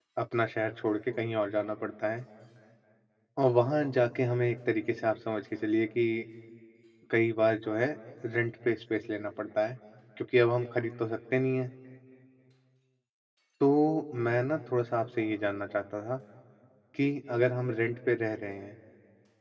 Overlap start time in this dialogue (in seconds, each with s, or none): none